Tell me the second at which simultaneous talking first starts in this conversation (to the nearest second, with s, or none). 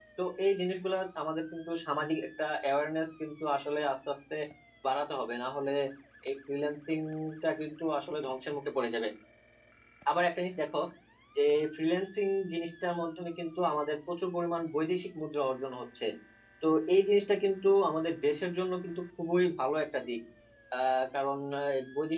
none